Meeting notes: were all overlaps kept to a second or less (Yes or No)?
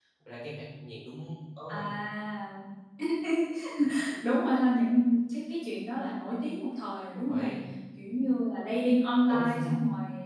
Yes